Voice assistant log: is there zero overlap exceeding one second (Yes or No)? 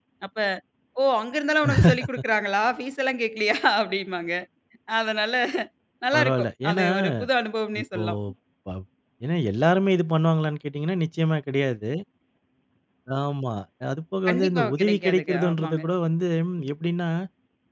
No